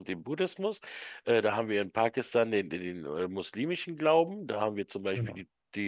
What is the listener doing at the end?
listening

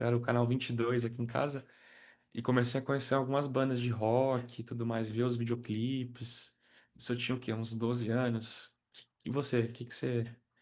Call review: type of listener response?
listening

